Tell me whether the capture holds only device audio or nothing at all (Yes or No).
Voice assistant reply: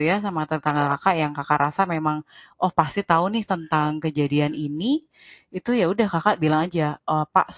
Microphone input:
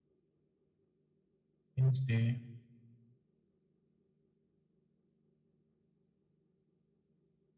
No